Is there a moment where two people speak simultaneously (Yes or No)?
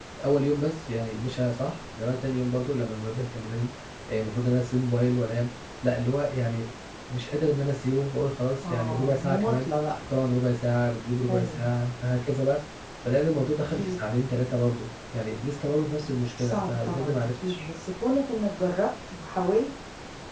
Yes